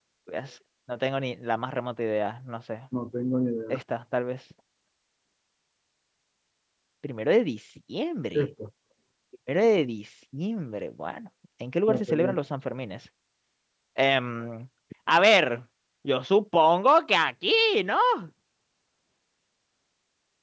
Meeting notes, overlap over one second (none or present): none